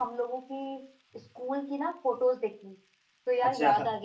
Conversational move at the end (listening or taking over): listening